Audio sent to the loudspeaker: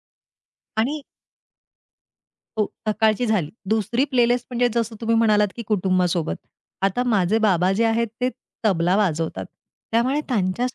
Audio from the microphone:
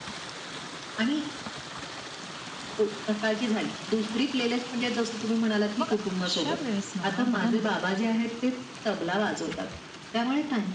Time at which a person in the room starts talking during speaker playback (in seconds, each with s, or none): 5.8 s